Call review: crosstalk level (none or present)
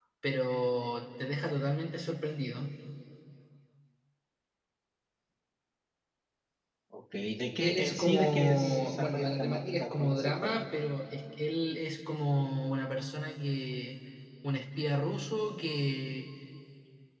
present